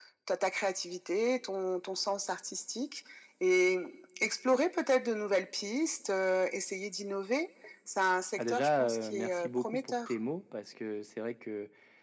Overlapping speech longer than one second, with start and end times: 8.4-10.2

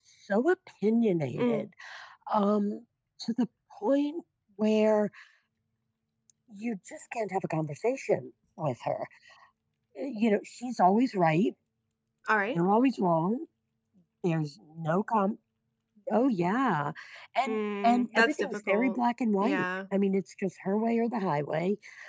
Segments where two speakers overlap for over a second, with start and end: 17.4-19.0

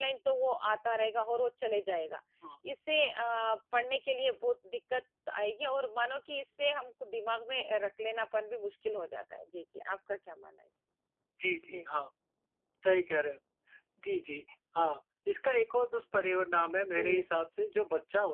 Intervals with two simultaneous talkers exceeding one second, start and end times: none

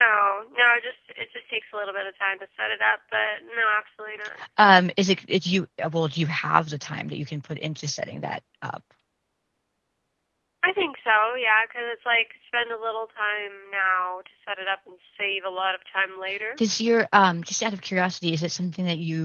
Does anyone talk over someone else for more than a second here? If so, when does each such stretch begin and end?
none

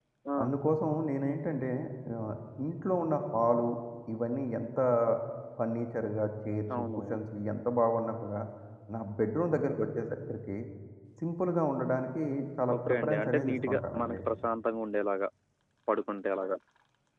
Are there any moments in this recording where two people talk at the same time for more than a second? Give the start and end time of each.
12.8-14.2

